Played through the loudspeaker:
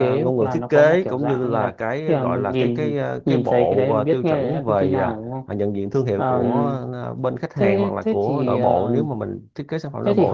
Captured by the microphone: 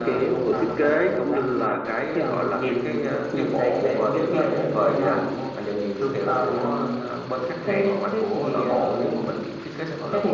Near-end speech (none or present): none